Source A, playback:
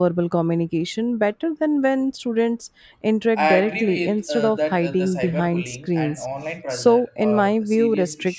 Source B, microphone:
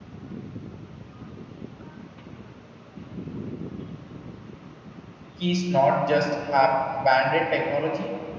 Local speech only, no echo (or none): keys not just have banded technology,